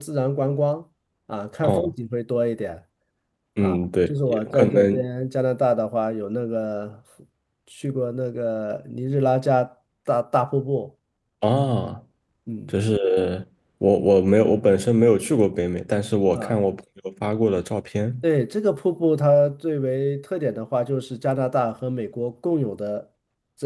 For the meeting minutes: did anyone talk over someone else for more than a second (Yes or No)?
Yes